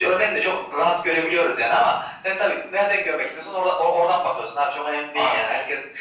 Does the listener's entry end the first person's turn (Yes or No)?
No